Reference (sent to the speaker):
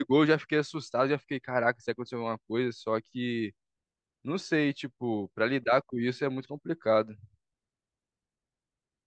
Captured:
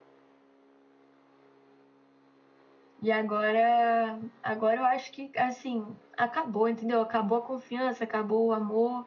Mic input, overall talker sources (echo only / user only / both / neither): user only